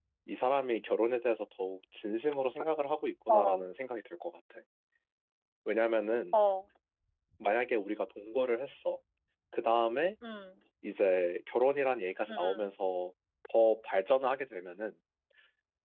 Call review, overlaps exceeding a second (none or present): none